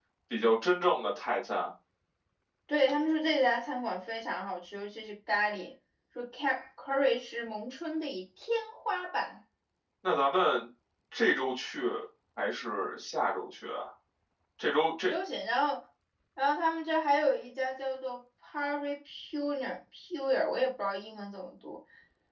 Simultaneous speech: No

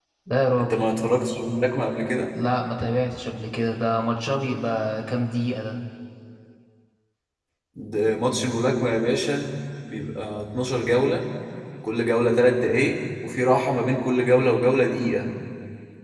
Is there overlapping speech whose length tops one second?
No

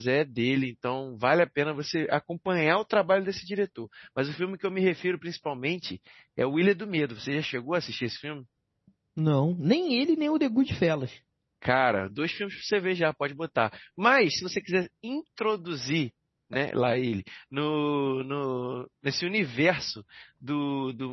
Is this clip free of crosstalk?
Yes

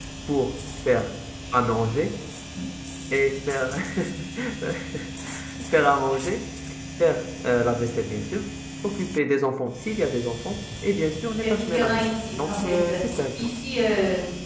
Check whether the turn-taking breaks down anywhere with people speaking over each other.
Yes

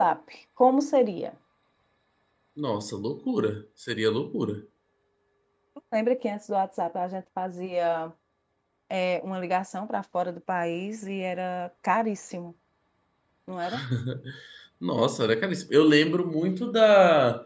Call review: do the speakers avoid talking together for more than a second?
Yes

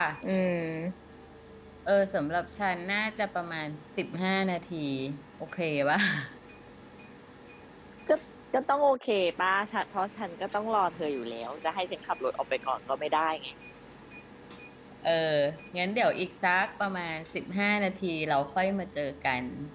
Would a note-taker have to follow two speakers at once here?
No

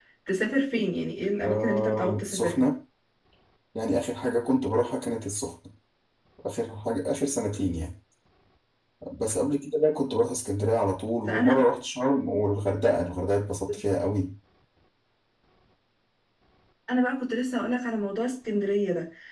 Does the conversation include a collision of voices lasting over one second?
Yes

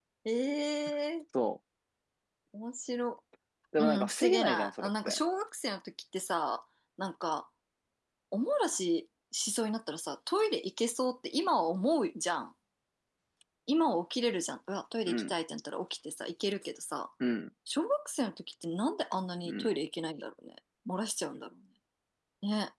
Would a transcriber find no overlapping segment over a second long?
No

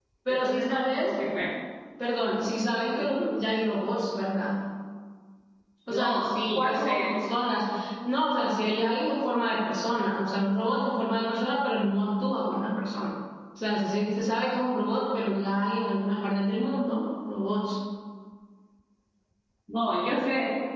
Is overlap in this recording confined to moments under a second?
No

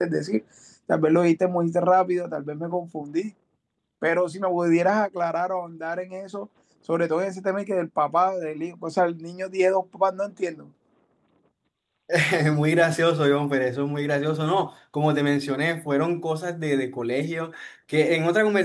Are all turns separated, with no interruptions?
Yes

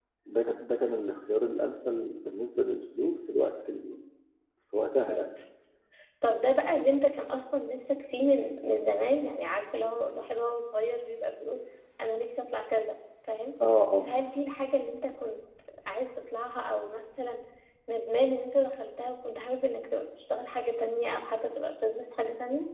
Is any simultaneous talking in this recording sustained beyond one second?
No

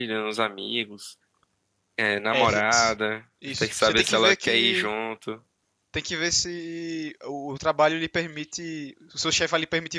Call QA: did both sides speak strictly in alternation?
No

